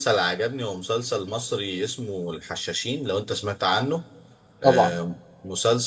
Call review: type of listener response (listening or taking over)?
listening